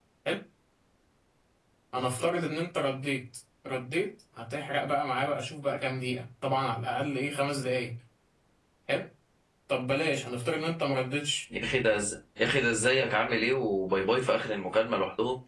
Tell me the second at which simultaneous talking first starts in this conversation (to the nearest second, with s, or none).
none